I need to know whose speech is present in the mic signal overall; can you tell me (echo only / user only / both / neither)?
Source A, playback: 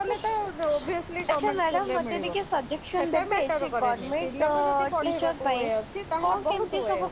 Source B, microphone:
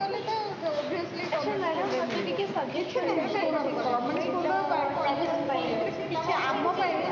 both